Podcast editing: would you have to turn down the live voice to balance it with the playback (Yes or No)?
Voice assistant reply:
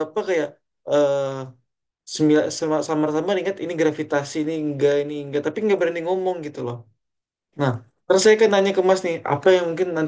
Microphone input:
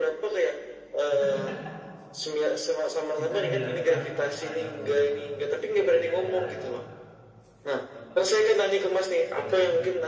No